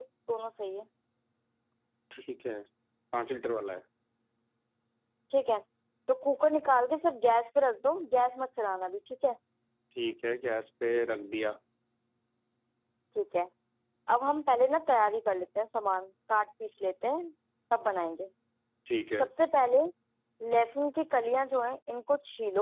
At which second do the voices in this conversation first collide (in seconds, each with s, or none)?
none